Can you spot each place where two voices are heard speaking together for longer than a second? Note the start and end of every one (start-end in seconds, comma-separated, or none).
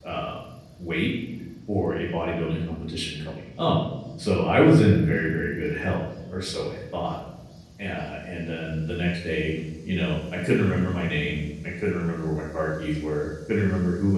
none